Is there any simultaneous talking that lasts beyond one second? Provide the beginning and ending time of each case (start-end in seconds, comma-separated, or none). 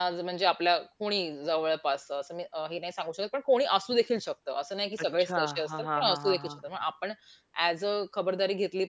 5.2-6.5